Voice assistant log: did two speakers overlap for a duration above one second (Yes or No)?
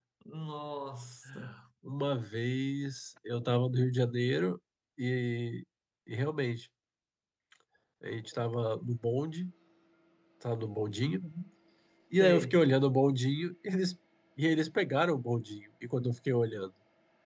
No